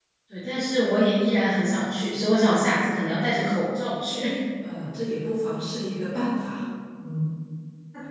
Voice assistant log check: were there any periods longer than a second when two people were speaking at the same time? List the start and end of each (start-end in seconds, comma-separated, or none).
none